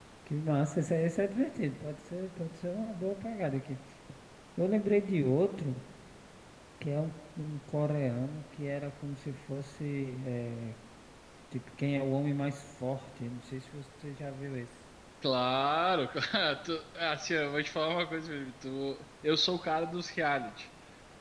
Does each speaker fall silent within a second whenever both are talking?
Yes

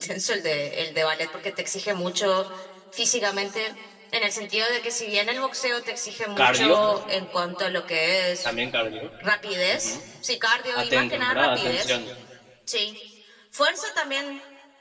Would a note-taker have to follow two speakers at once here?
Yes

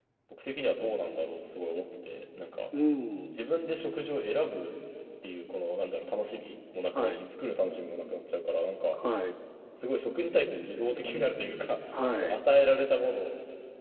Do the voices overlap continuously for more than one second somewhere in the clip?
No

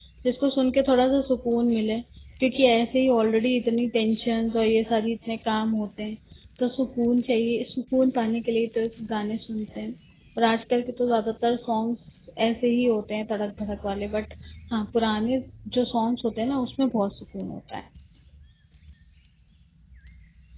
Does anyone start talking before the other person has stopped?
No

